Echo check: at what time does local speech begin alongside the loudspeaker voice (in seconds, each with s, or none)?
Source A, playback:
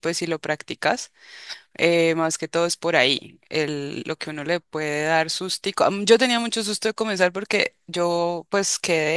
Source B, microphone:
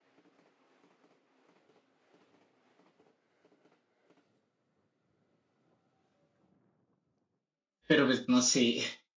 7.8 s